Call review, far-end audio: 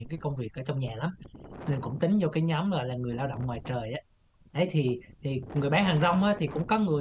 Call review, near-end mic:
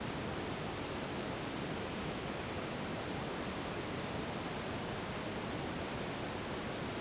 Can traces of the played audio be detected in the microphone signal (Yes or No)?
No